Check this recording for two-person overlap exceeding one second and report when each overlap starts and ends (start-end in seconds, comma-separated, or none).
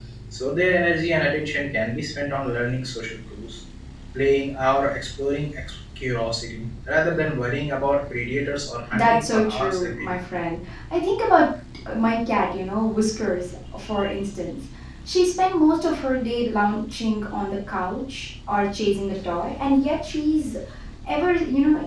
8.9-10.2